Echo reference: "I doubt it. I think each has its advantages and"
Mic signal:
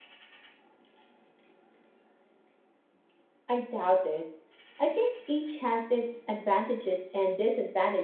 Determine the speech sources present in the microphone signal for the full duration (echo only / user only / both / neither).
echo only